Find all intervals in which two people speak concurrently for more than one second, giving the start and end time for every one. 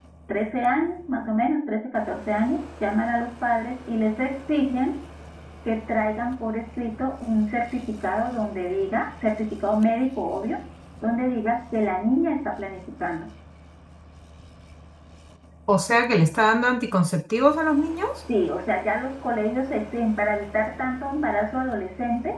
none

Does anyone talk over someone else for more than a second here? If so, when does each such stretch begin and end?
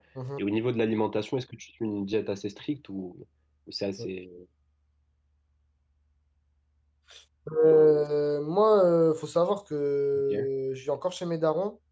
none

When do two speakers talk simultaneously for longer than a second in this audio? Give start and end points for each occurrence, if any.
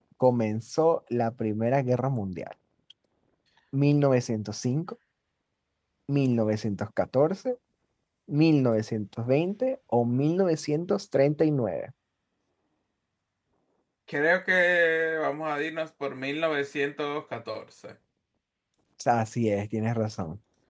none

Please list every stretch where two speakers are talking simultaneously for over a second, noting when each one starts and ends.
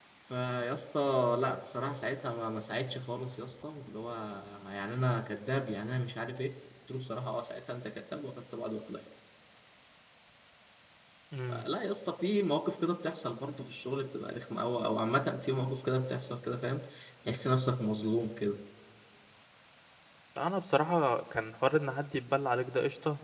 none

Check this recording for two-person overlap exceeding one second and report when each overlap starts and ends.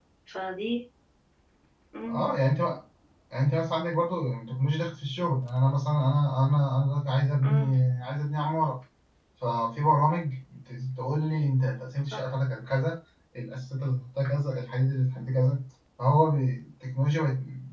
none

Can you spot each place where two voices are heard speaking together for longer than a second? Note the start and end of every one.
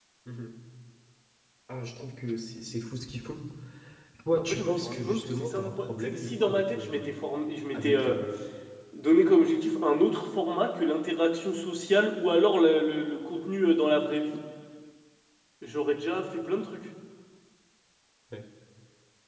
4.3-7.2

